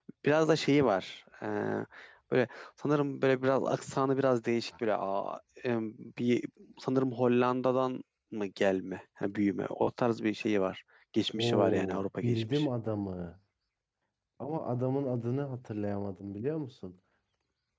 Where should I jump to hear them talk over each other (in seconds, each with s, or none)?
11.4 s